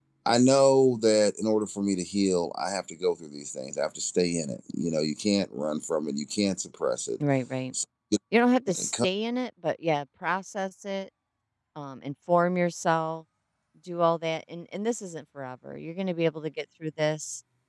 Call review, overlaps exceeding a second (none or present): none